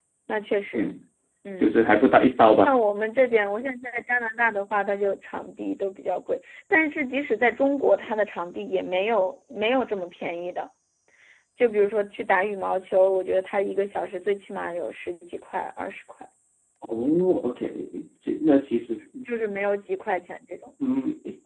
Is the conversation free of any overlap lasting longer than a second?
Yes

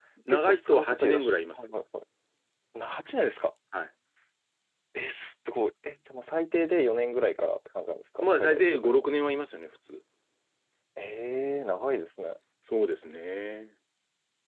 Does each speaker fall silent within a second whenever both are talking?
No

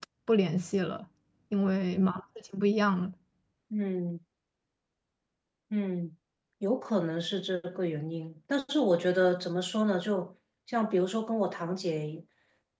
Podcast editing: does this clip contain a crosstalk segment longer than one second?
No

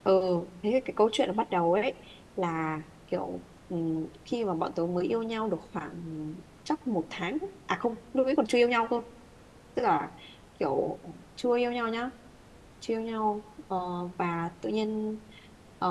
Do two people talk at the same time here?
No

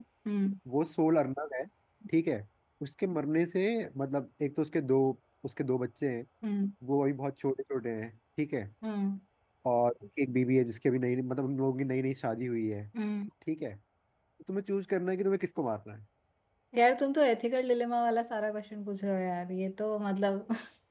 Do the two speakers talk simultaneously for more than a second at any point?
No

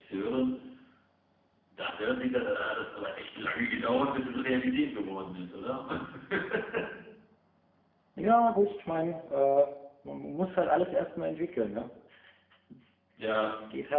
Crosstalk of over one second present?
No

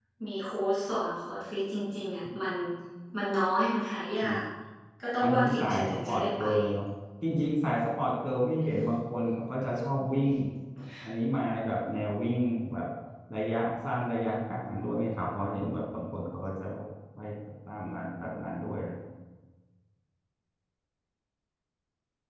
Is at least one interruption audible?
Yes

